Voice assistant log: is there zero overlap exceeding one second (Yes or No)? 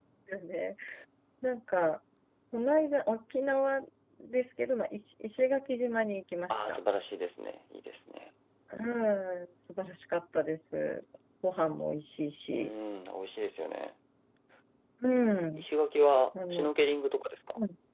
Yes